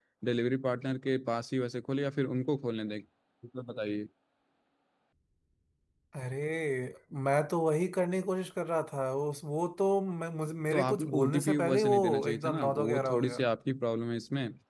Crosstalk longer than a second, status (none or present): present